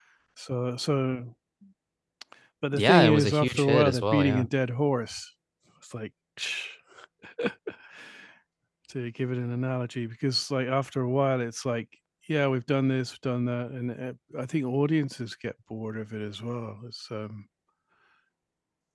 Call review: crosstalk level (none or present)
present